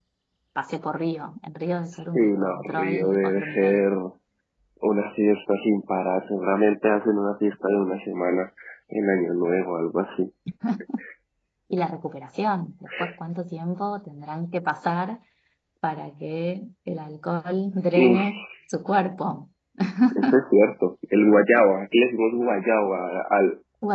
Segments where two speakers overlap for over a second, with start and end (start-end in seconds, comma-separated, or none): 2.2-3.8